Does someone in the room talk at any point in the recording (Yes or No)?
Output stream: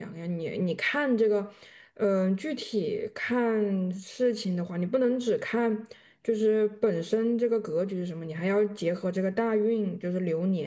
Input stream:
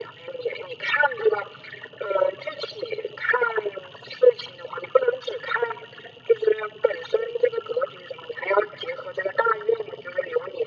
No